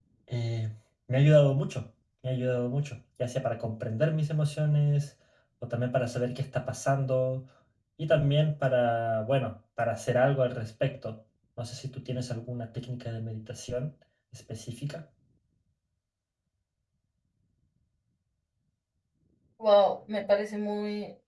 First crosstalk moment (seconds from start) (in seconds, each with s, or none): none